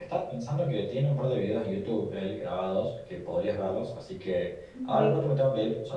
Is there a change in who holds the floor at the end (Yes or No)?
No